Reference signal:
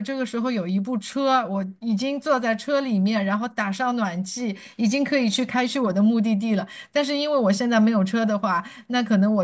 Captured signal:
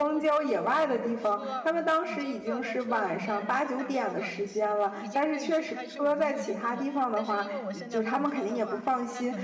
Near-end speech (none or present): present